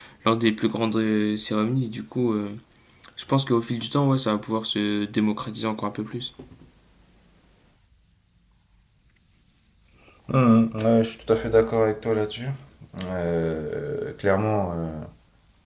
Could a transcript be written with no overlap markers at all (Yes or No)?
Yes